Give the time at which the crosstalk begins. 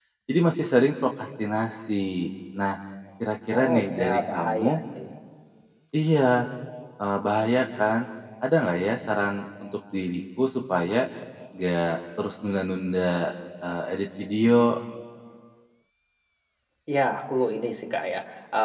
3.5 s

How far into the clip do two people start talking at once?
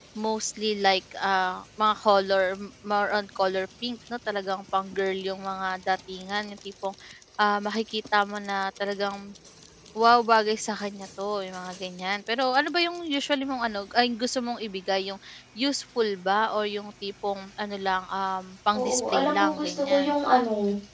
18.7 s

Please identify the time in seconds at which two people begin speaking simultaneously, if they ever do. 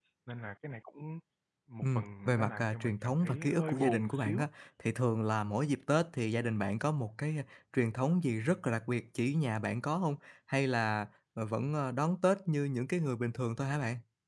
1.8 s

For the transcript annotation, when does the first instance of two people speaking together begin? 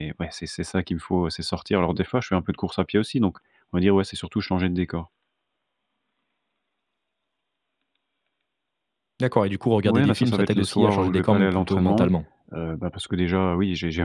9.8 s

